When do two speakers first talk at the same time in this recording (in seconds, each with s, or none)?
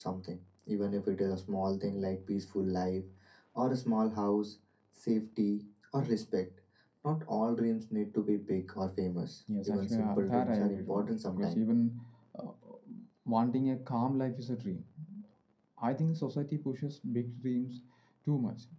9.5 s